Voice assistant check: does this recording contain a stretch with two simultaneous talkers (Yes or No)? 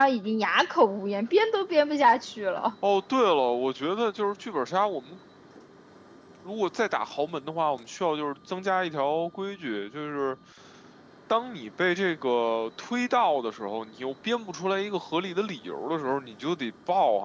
No